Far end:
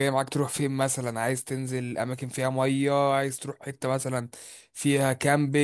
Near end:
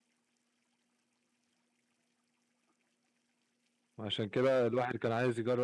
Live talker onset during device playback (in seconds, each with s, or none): 4.0 s